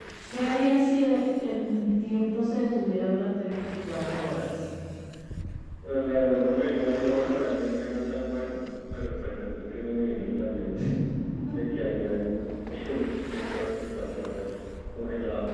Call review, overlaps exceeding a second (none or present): none